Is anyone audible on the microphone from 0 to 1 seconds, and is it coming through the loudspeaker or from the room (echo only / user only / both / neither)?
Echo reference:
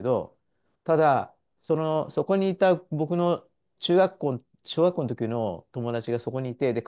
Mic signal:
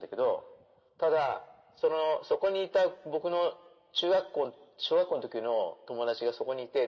echo only